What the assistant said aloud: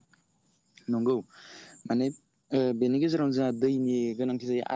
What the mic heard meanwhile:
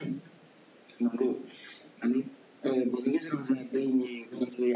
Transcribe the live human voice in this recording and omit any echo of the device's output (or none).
none